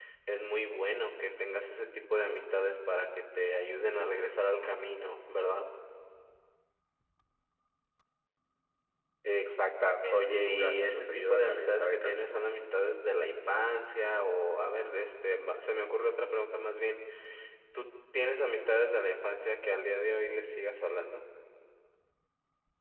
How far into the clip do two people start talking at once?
10.1 s

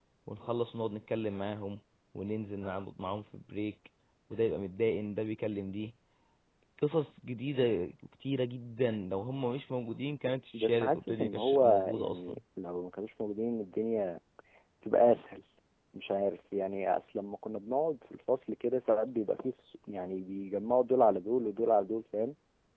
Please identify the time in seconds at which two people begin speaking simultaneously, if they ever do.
10.5 s

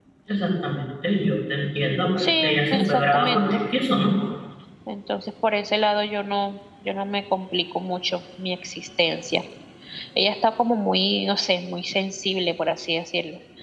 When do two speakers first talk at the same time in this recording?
2.2 s

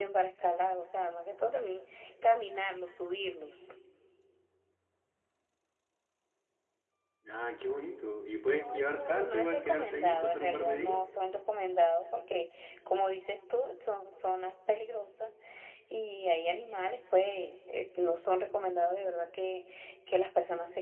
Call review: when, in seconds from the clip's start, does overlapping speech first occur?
8.6 s

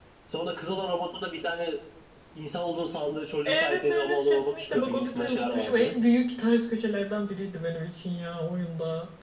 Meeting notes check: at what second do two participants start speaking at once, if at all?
3.4 s

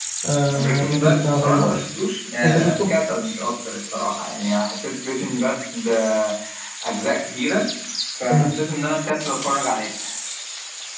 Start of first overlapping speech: 0.5 s

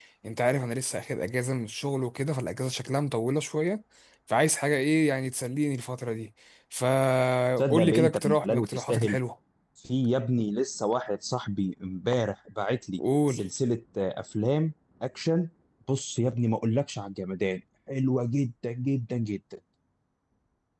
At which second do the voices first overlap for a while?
7.6 s

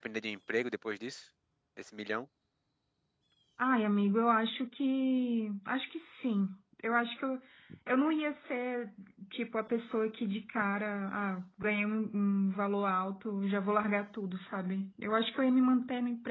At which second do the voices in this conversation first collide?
none

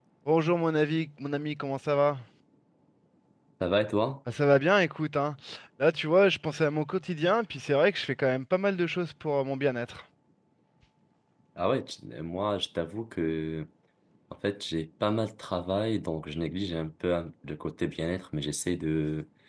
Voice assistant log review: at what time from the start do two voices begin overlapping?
none

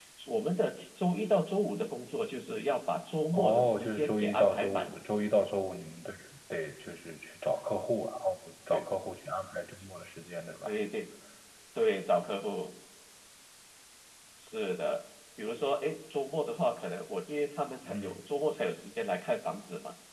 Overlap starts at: 3.3 s

